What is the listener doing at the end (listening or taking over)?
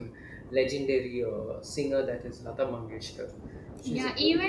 taking over